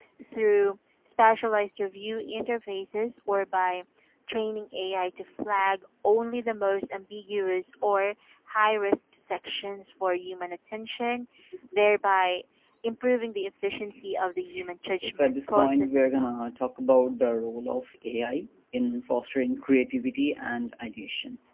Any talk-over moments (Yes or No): Yes